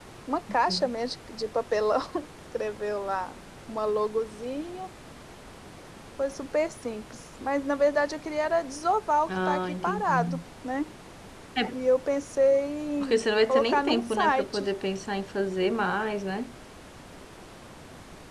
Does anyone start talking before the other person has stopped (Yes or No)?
Yes